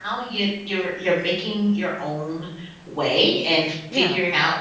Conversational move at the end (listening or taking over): listening